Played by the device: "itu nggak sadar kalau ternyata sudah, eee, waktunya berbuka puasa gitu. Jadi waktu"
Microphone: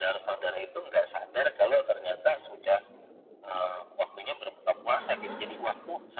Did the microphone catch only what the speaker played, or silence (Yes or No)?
No